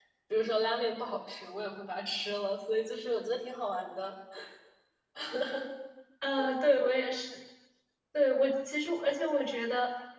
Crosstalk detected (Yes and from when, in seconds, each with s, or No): No